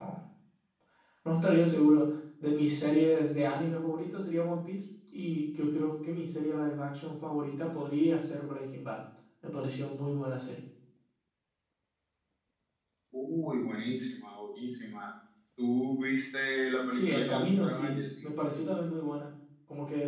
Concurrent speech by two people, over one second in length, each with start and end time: 16.9-18.2

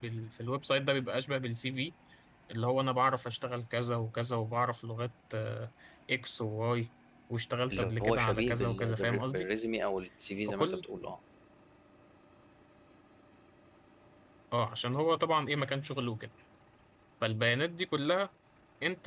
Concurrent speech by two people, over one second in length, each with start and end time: 7.7-9.5

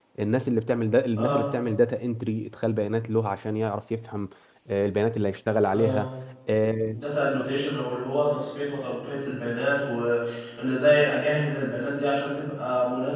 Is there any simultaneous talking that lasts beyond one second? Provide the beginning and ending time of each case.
none

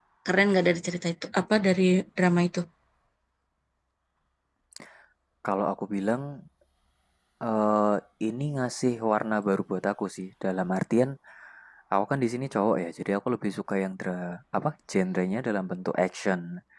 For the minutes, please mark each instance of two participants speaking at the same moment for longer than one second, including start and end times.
none

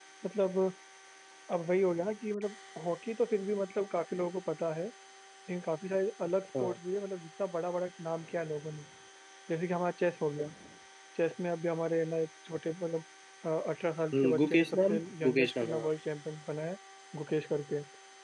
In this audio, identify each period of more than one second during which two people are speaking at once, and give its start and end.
14.1-15.9

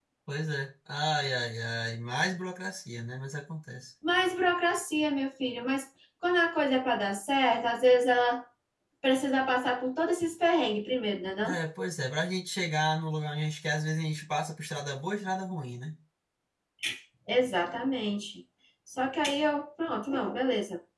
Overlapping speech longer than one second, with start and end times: none

